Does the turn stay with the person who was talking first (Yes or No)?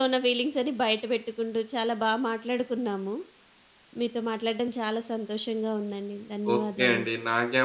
No